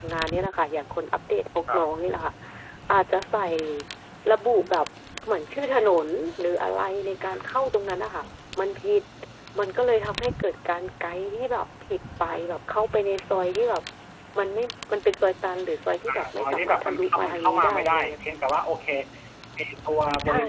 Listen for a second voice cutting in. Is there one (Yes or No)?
Yes